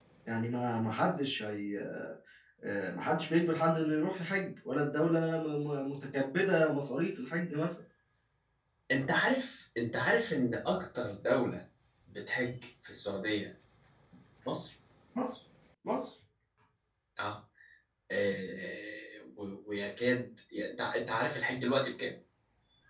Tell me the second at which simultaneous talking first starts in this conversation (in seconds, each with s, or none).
none